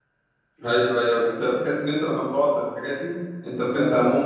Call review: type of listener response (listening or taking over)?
taking over